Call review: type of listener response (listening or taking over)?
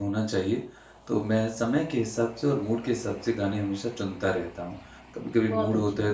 listening